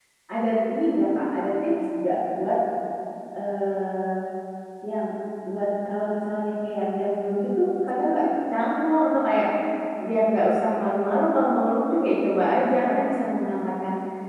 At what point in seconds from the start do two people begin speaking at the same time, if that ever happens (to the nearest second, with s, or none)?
none